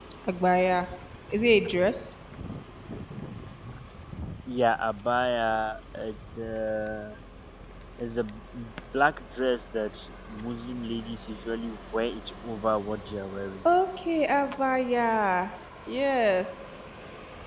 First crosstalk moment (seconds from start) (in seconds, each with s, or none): none